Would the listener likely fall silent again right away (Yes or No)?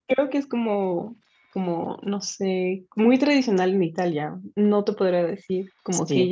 No